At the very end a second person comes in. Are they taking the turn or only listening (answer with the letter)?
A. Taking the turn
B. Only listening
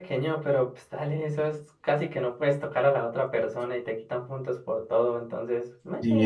A